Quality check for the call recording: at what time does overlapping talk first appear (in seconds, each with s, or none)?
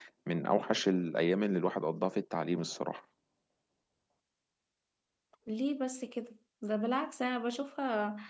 none